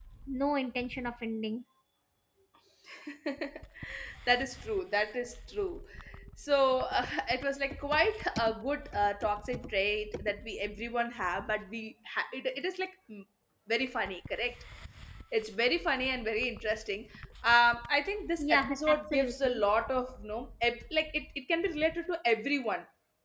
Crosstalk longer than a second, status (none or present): present